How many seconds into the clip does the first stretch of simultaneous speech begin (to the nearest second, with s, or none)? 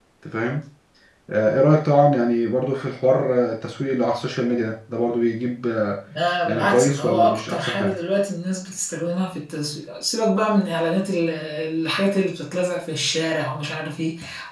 6 s